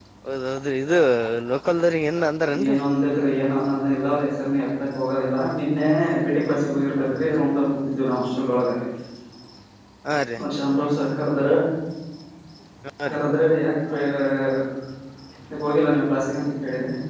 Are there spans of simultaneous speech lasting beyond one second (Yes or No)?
No